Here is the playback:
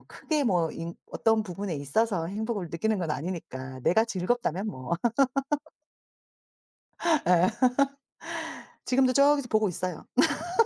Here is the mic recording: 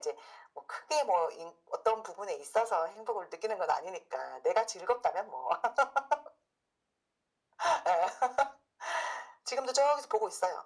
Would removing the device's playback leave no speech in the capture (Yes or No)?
Yes